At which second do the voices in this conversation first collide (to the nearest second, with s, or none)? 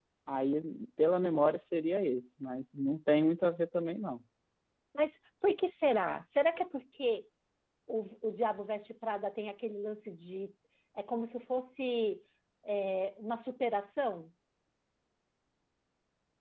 none